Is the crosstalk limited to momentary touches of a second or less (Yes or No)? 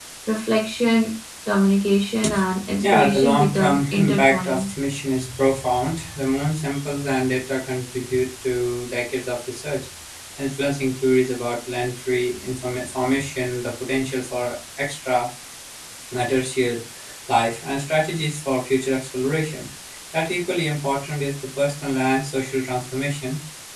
No